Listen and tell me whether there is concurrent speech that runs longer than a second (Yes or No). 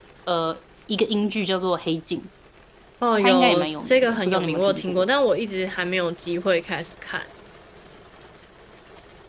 Yes